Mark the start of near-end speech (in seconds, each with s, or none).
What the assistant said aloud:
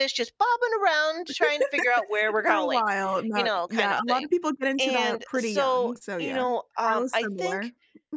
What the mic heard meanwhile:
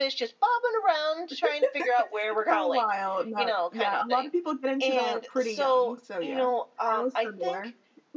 none